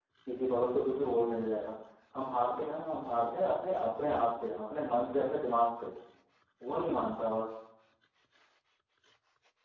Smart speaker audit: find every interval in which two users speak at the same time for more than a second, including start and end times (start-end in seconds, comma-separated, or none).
none